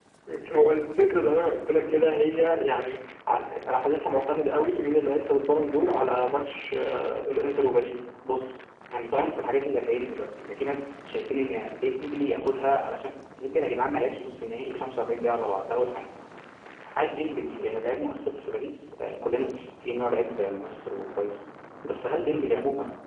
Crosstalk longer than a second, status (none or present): none